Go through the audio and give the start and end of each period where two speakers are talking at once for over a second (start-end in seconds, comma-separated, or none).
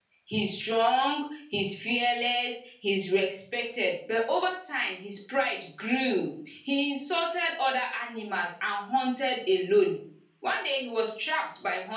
none